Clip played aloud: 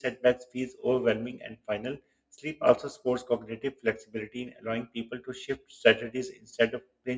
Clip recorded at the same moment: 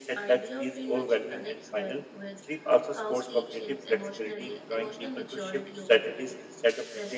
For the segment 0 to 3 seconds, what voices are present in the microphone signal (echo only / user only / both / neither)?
both